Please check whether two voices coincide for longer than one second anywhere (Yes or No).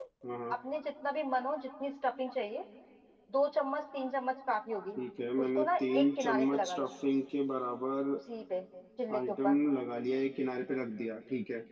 Yes